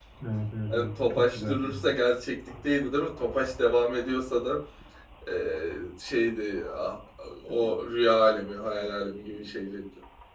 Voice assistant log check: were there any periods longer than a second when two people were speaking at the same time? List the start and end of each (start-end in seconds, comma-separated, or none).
0.7-1.9